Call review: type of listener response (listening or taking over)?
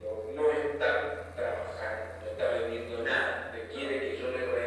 listening